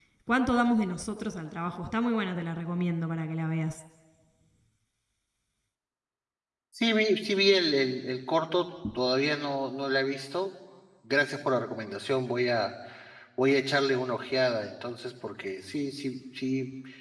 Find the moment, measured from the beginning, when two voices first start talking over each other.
none

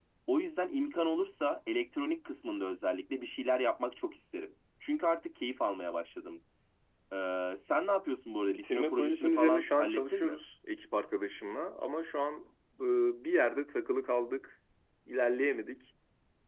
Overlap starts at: 8.5 s

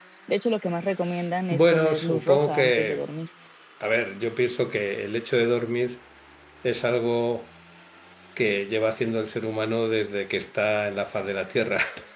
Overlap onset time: 1.5 s

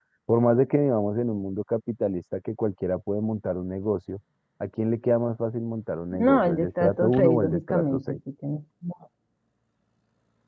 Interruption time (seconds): 6.1 s

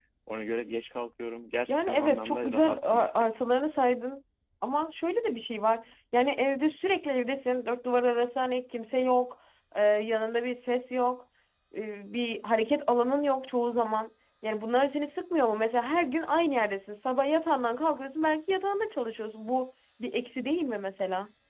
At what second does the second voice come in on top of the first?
1.7 s

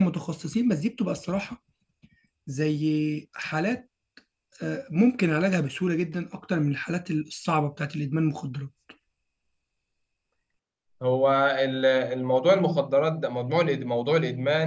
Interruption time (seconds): none

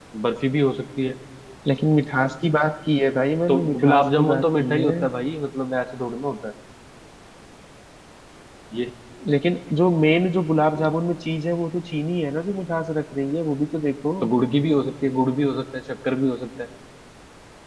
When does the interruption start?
3.5 s

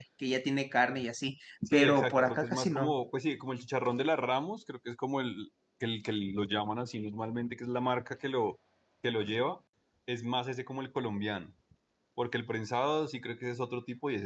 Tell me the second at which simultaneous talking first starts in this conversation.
1.7 s

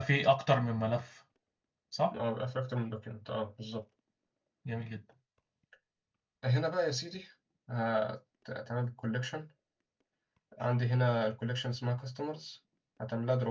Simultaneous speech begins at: none

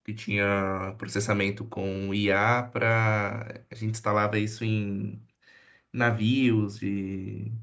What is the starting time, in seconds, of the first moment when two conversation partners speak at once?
none

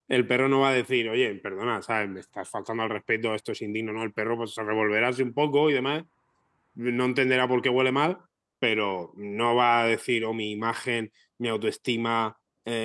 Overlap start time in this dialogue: none

